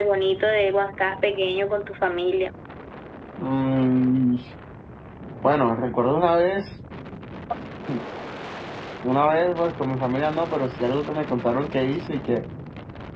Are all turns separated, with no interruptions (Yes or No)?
Yes